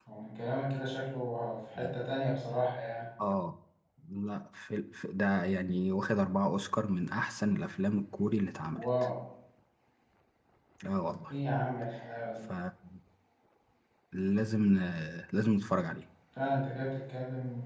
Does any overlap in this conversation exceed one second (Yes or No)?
No